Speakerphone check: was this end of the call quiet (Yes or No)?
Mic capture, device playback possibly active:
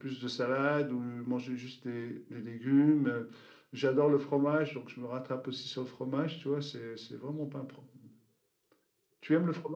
Yes